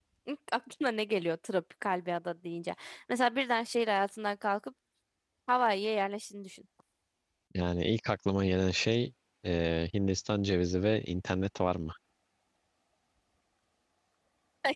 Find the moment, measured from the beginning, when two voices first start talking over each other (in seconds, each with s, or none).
none